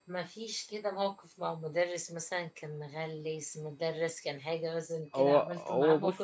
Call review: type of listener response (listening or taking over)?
taking over